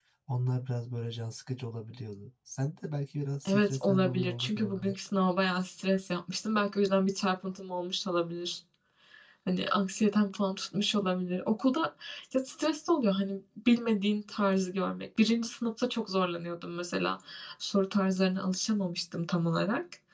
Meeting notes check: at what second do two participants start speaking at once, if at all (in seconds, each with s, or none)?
3.5 s